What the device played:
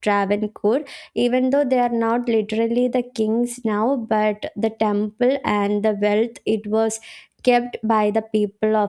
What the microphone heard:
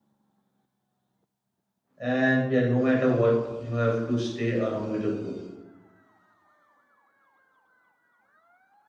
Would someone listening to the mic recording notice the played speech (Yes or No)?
No